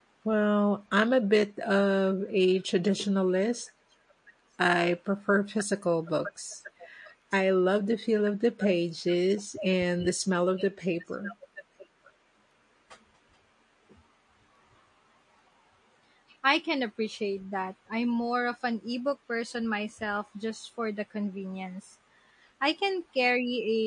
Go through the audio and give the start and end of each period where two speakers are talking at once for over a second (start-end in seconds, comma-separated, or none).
none